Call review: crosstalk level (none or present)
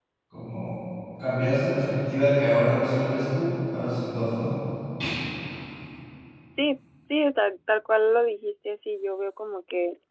none